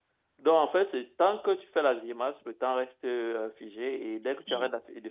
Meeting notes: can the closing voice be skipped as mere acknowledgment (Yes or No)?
Yes